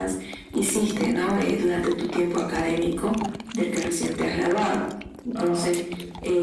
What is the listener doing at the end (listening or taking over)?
listening